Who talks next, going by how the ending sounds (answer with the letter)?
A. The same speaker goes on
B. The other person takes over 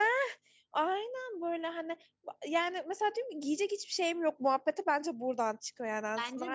B